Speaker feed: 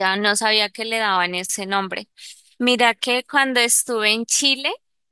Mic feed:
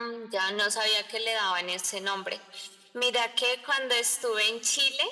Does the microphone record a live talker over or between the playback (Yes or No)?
No